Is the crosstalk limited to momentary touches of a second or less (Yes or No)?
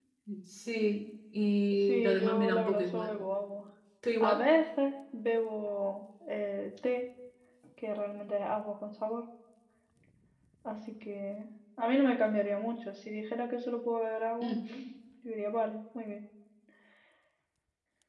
No